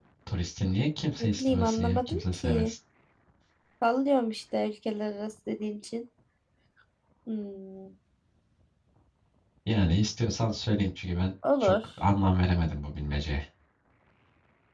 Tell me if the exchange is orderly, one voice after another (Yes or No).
No